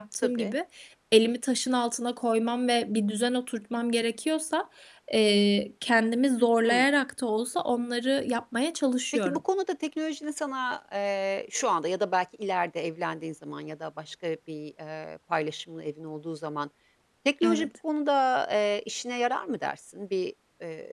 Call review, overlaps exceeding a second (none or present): none